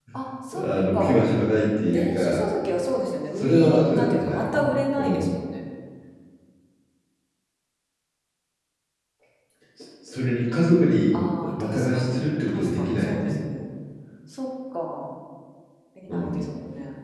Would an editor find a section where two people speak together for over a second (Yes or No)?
Yes